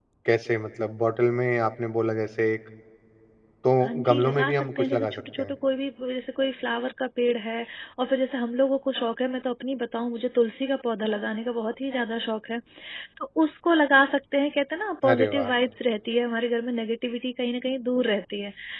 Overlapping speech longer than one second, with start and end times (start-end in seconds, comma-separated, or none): 3.8-5.5